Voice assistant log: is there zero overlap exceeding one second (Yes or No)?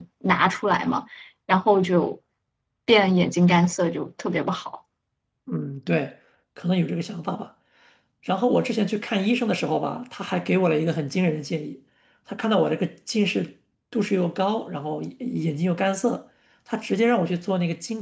Yes